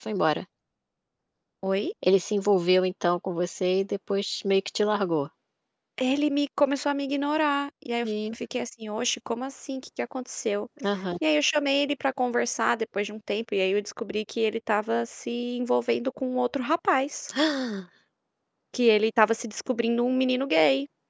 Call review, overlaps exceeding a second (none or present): none